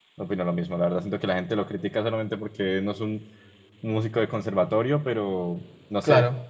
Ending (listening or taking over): listening